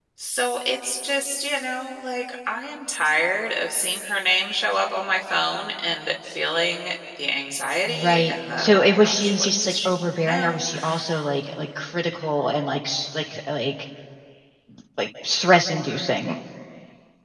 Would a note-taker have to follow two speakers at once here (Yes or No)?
Yes